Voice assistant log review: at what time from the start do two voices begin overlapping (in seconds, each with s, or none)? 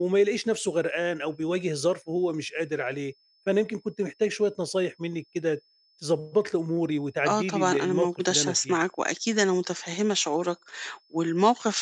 7.2 s